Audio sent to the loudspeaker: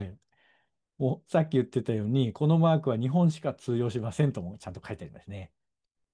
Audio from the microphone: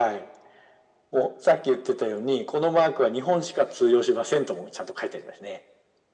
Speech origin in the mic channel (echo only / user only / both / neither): echo only